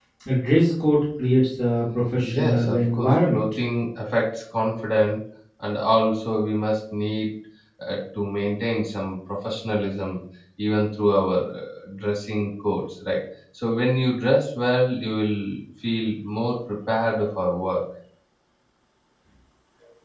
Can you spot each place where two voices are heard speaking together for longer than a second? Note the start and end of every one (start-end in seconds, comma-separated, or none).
2.2-3.4